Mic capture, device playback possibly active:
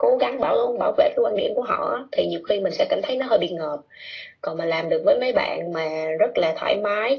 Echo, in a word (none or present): present